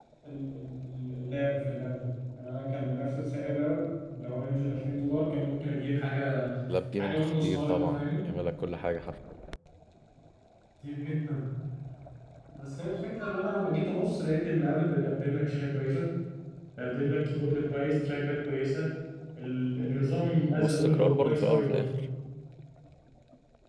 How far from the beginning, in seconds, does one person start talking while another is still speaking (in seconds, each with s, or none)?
7.0 s